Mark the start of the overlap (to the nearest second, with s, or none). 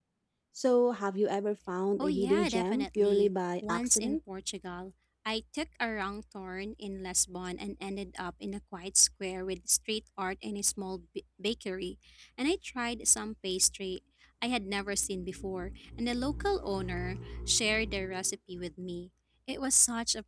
2 s